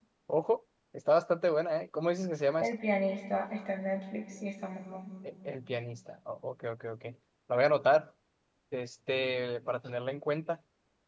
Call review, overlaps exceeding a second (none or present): none